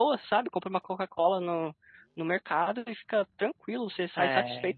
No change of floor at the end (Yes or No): No